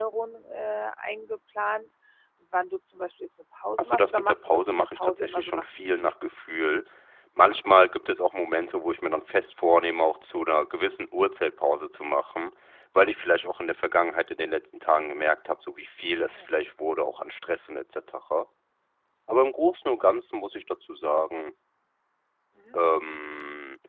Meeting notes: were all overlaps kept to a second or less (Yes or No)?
No